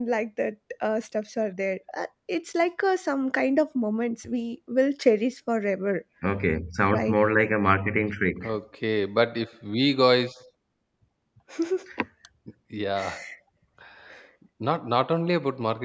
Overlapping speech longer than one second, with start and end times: none

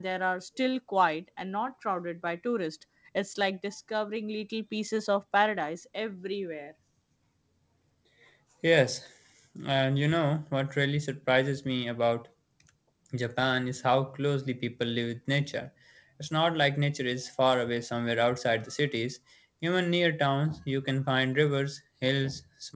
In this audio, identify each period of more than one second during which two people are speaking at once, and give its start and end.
none

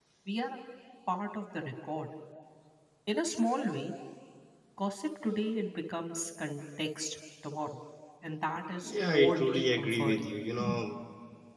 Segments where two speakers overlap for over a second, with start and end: 8.8-10.2

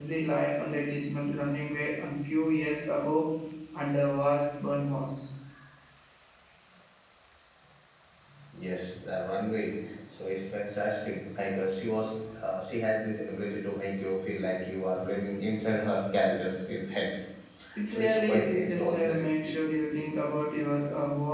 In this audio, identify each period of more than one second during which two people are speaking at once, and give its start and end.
17.9-19.2

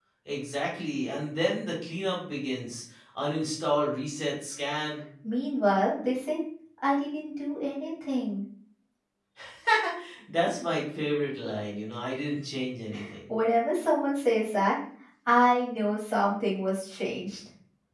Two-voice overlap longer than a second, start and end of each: none

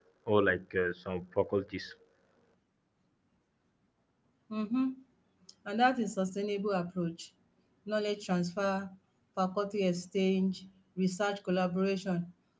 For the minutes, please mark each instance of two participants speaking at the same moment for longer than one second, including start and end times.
none

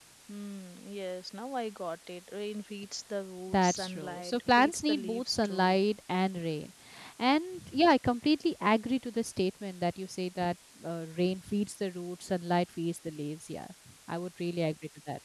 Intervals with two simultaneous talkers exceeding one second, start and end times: 3.5-5.8

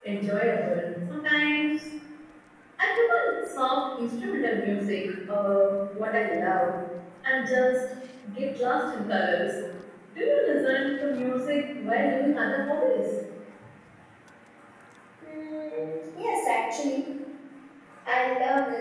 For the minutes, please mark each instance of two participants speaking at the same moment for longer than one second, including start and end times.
none

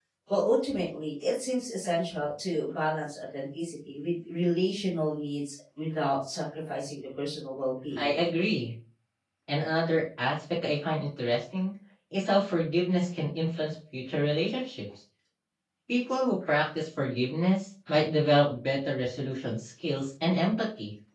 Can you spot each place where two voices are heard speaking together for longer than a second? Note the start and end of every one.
none

